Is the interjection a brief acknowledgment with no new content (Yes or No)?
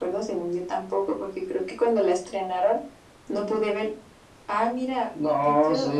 No